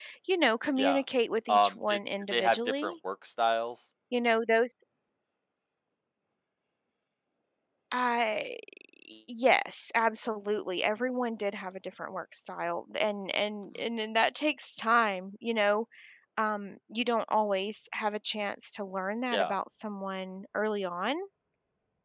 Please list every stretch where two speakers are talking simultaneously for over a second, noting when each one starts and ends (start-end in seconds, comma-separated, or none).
1.5-2.9